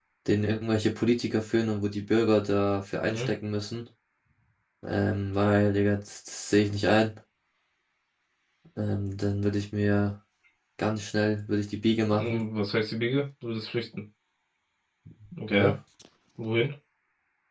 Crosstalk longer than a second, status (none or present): none